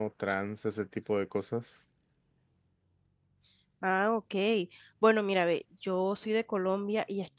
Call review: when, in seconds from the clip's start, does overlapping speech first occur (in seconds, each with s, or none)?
none